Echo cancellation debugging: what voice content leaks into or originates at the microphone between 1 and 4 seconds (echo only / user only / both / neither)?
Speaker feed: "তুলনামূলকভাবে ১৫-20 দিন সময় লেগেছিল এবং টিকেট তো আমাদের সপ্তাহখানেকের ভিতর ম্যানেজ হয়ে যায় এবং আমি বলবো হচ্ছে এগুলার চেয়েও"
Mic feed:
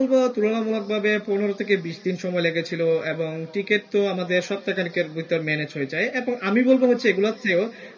echo only